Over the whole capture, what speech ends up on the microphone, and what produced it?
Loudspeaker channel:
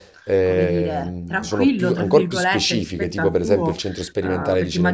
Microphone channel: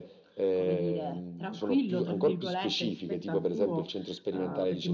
echo only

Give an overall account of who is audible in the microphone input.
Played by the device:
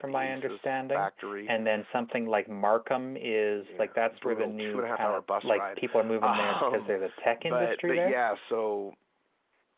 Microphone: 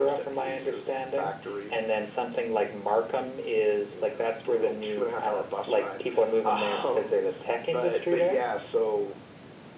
echo only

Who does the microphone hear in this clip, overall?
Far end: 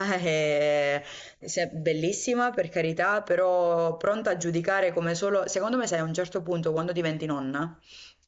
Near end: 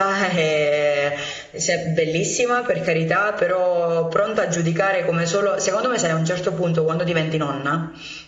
echo only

